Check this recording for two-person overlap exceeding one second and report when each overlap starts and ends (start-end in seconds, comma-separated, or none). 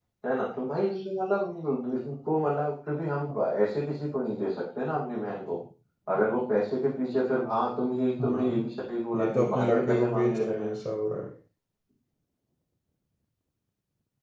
9.1-10.7